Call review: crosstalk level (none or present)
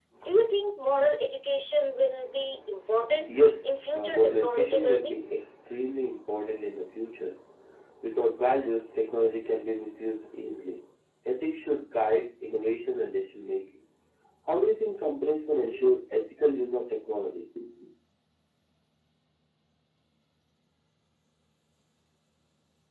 present